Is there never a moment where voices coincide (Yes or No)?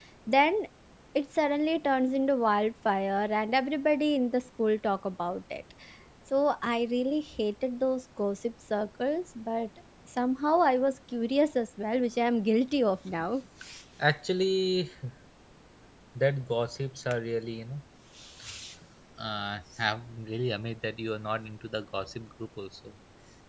Yes